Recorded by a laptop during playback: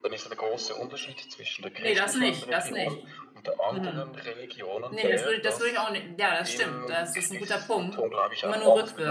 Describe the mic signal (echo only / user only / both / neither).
both